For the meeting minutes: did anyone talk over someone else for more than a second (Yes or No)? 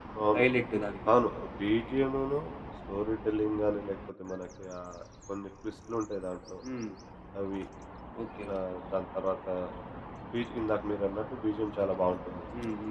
No